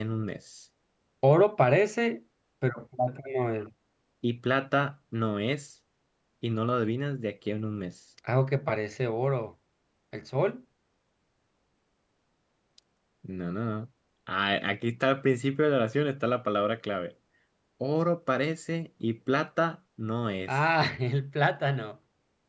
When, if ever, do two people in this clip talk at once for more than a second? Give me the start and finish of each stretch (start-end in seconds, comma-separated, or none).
none